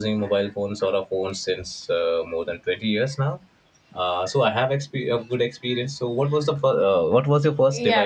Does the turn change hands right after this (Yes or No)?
Yes